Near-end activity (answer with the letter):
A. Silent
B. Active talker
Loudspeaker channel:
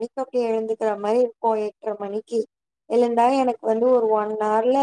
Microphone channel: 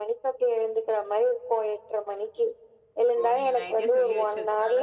B